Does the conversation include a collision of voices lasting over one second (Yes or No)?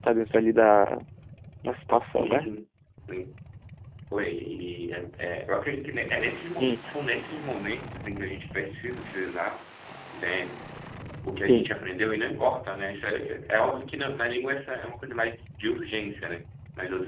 No